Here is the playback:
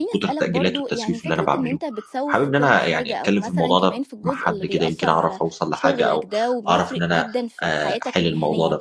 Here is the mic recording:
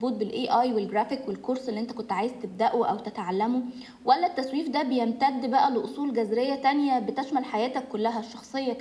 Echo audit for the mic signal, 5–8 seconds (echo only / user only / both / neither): user only